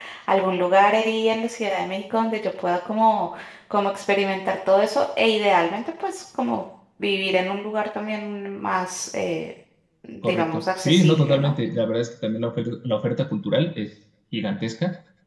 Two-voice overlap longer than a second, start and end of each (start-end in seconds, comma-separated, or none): 10.2-11.5